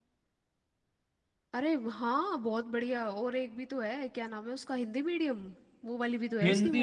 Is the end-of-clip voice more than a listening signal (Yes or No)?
Yes